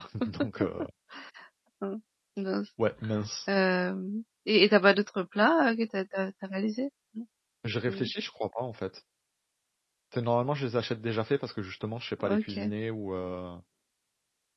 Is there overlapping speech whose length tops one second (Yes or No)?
No